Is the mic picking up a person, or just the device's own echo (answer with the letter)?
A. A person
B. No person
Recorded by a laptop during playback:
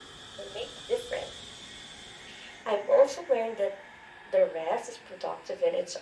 B